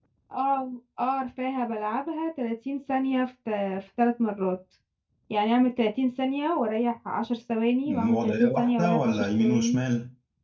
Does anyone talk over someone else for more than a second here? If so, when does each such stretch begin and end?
7.9-9.8

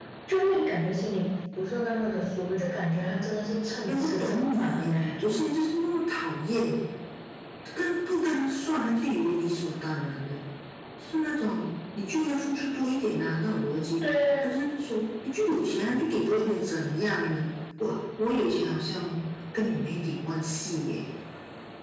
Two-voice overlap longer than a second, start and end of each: 3.9-5.4

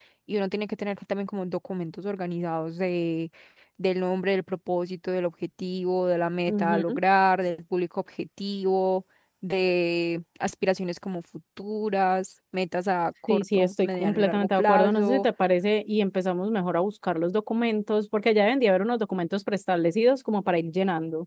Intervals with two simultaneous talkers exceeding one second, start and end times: 13.3-15.2

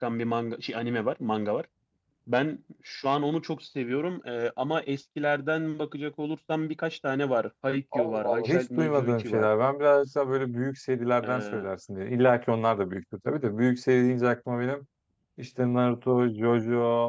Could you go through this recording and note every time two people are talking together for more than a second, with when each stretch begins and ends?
8.0-9.5

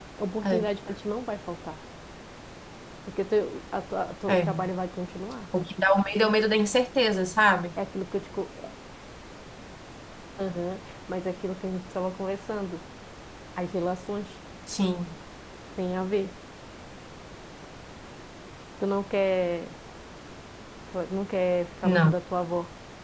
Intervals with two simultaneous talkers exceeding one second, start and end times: none

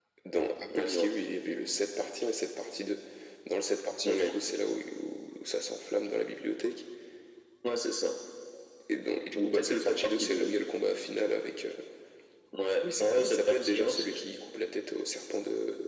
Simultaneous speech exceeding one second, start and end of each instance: 9.4-10.6, 12.8-14.2

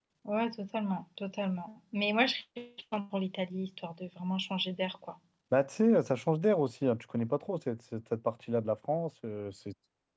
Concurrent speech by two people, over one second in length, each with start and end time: none

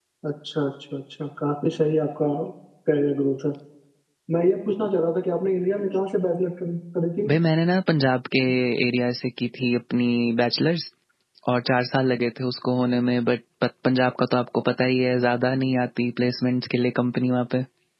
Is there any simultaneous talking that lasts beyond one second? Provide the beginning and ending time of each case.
none

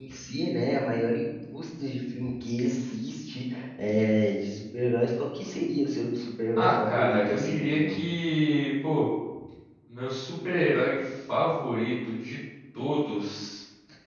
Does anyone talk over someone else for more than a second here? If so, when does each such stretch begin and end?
6.5-8.0

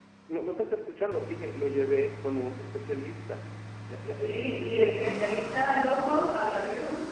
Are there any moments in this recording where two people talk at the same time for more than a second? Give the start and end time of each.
4.1-5.4

